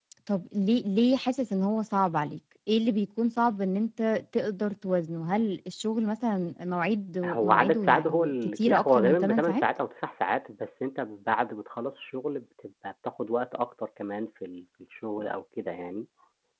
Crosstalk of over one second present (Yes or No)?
Yes